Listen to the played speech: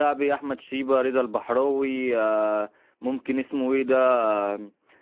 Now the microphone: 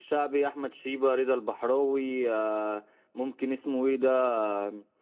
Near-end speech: none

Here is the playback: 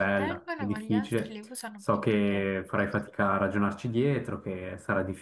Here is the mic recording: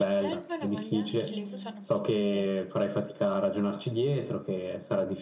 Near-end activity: present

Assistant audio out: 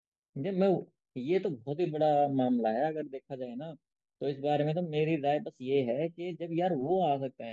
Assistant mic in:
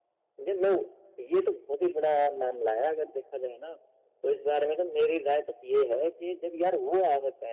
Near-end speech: none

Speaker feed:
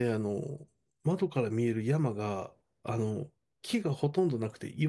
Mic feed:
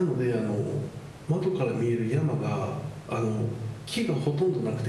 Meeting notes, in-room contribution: none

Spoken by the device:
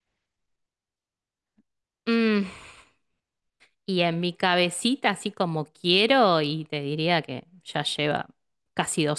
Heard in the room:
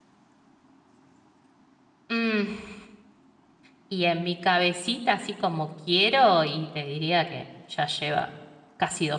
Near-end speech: none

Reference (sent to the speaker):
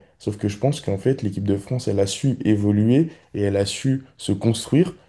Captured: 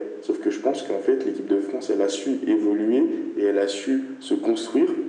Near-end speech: none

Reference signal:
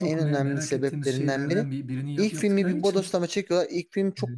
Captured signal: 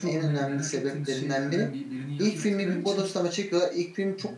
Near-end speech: none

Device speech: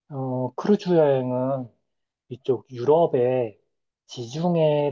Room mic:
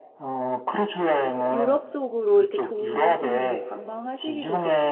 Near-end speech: present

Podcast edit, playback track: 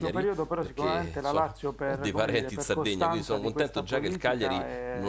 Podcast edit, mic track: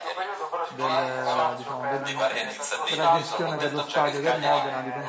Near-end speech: present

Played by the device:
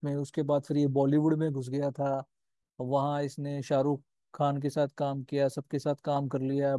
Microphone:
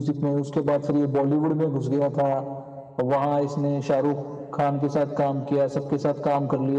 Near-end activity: none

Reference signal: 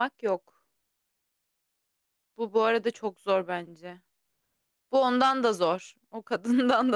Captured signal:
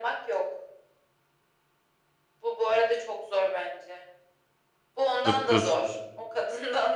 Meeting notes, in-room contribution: present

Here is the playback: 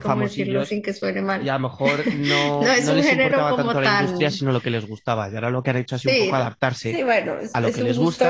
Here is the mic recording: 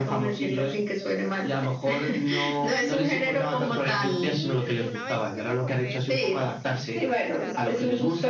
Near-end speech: present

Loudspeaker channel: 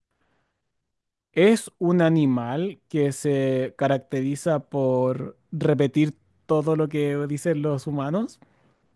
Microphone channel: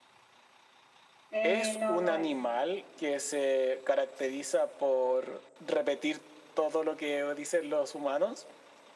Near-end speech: present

